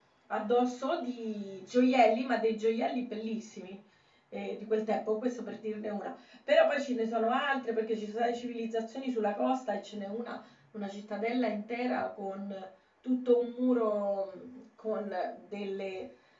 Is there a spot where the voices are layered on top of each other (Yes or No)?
No